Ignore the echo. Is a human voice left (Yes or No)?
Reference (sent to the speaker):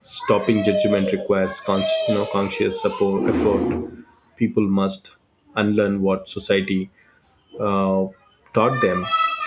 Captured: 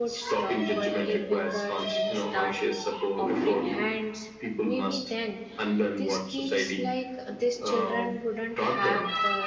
Yes